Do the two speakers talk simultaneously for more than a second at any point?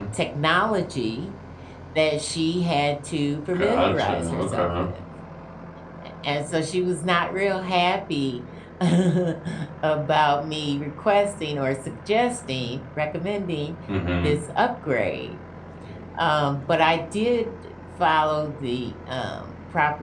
Yes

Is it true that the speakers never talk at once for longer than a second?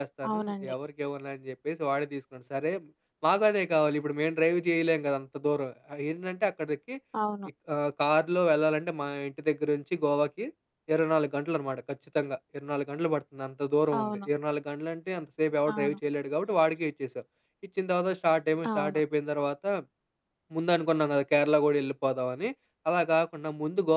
Yes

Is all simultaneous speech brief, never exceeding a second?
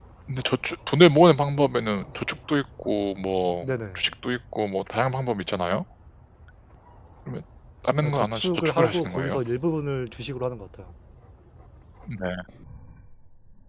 No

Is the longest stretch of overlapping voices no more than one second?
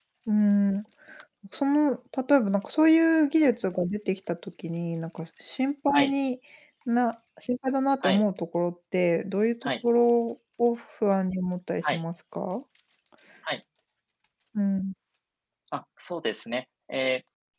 Yes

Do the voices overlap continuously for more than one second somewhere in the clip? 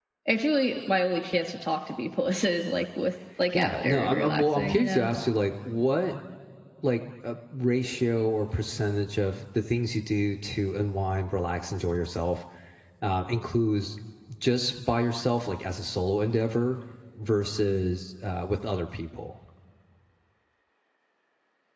Yes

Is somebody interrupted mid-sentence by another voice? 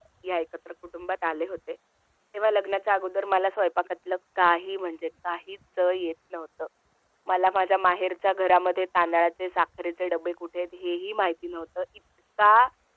No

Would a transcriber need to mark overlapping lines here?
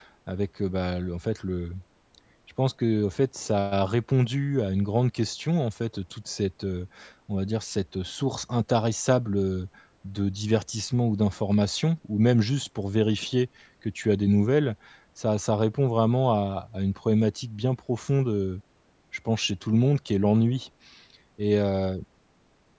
No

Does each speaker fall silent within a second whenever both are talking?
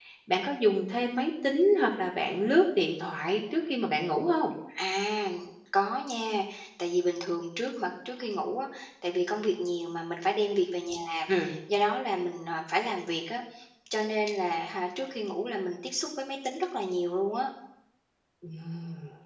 Yes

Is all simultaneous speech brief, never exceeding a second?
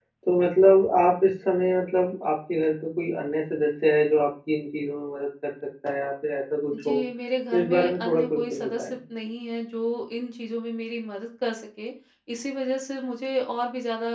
No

